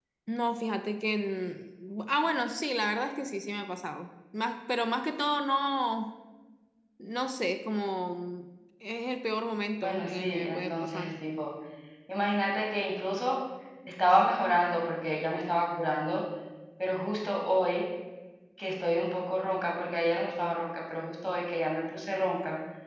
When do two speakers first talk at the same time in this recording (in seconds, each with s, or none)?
9.8 s